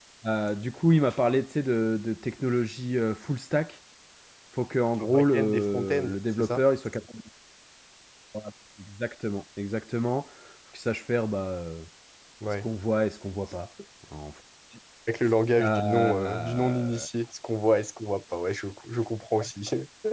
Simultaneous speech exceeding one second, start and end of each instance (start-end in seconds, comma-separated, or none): 5.0-6.6, 15.6-17.0